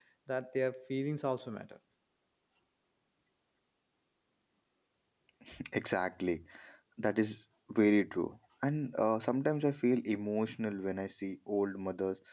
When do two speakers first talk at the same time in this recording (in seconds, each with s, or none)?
none